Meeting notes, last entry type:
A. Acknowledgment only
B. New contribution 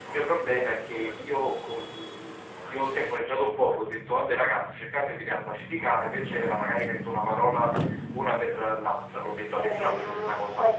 B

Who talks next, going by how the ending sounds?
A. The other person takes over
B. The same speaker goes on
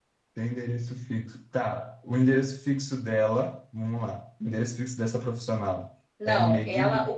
A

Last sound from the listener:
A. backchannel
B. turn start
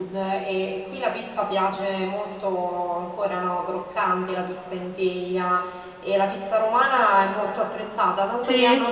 A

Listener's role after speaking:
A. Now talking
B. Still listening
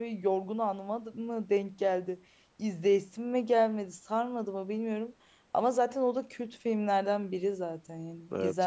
A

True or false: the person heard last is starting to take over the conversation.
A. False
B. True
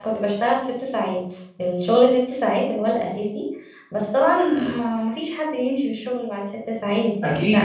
B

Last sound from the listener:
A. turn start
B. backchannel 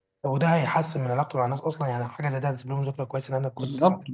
A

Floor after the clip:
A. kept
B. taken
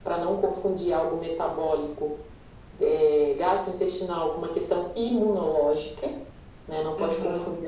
A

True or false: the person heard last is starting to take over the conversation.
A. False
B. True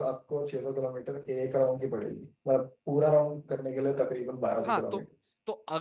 B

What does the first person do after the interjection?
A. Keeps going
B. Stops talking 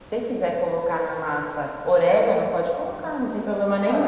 B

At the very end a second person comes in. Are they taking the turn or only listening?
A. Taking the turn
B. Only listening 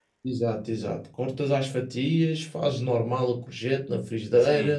B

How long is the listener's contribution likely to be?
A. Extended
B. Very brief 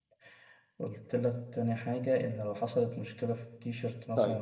A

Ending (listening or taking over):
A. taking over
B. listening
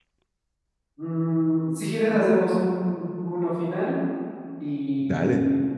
B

